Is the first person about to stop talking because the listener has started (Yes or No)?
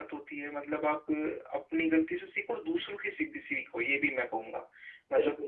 Yes